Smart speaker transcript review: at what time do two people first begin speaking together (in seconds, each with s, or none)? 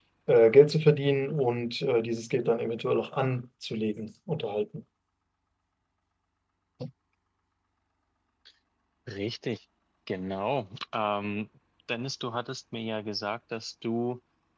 none